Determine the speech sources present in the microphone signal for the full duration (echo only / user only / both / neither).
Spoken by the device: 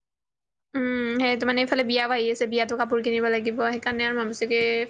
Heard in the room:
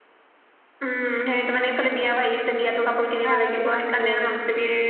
both